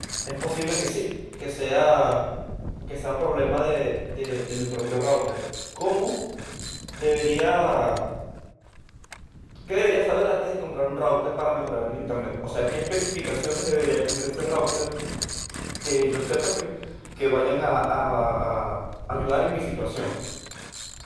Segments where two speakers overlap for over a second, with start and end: none

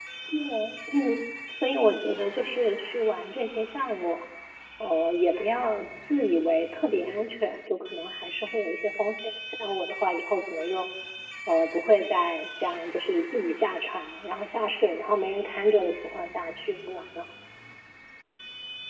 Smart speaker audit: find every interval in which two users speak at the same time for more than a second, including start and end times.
none

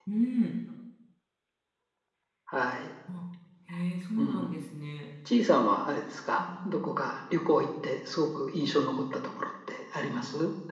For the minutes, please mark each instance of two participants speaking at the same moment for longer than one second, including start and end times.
none

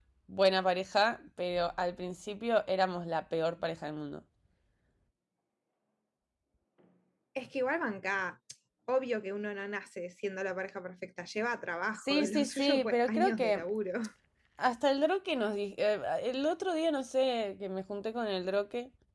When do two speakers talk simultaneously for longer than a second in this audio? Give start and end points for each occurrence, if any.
12.1-13.6

